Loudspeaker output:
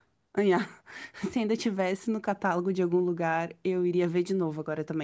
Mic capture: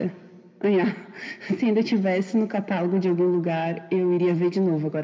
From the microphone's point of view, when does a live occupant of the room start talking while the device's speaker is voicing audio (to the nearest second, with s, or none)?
none